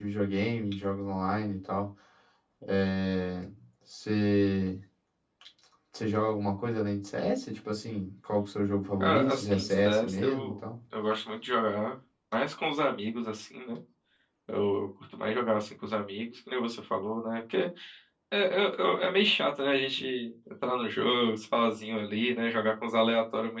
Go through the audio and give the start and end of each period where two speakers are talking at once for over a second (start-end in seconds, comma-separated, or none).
9.0-10.5